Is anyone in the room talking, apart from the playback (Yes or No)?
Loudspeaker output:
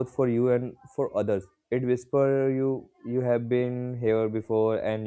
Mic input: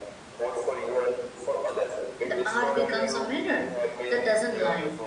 Yes